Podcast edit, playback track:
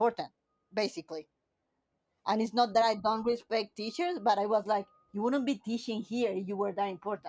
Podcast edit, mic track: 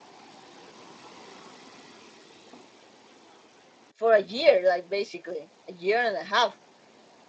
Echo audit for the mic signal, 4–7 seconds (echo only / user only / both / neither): user only